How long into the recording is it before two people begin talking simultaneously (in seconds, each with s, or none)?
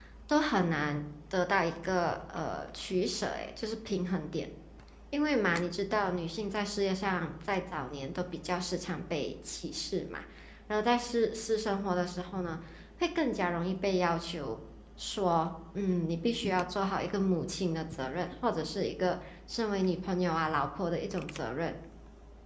none